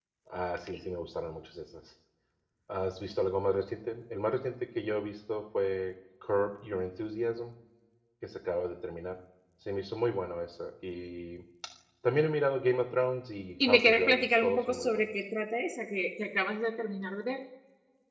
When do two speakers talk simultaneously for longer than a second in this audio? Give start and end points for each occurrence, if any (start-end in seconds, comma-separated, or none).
13.7-15.0